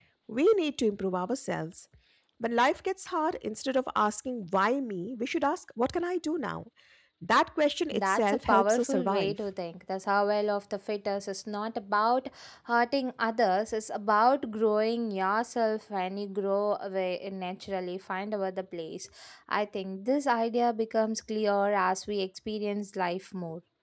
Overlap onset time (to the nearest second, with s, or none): 8 s